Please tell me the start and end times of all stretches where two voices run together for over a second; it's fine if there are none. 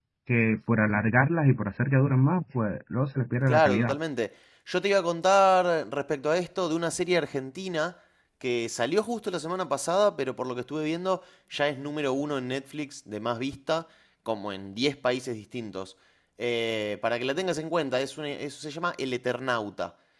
none

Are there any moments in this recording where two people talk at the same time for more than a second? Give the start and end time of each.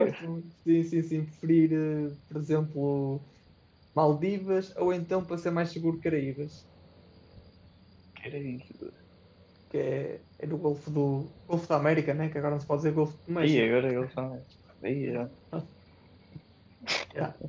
none

